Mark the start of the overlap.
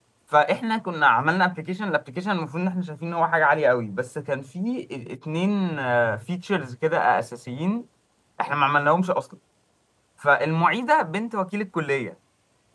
none

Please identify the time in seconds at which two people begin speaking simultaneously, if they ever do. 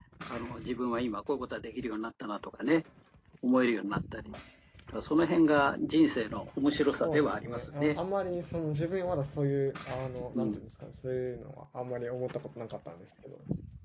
6.7 s

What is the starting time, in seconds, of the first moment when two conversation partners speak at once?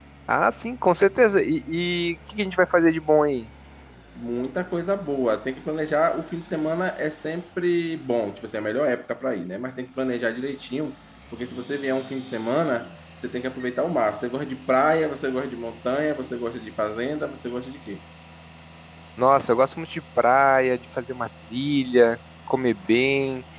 none

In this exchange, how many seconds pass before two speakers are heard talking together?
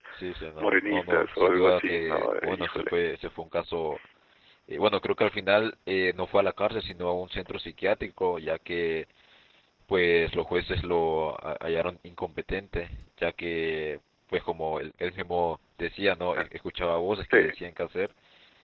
0.6 s

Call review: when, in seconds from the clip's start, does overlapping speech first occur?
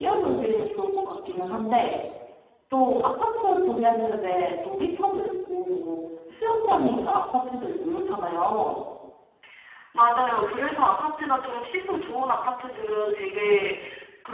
none

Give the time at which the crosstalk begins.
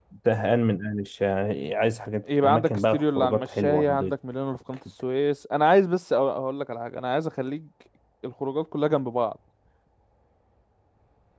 2.4 s

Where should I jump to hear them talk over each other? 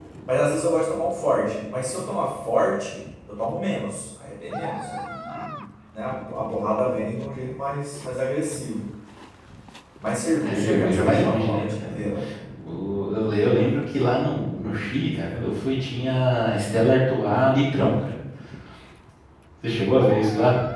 10.4 s

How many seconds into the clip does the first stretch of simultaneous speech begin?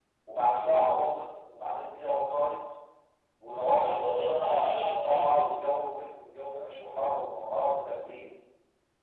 3.8 s

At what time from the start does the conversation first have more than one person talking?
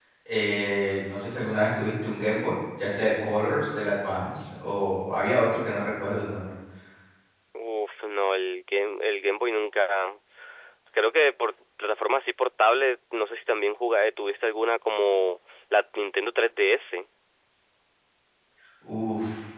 none

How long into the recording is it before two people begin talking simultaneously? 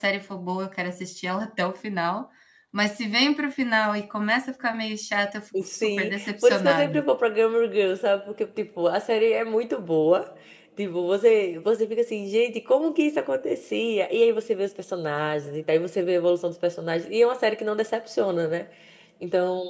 5.5 s

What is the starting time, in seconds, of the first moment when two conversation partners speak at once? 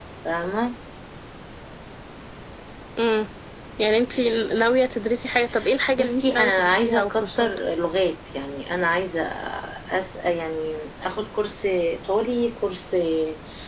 6.0 s

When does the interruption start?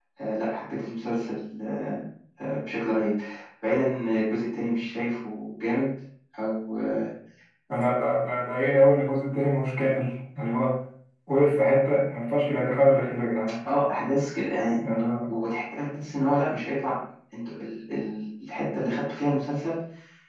none

